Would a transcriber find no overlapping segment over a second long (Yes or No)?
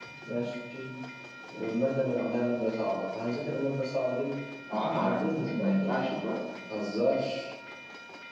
No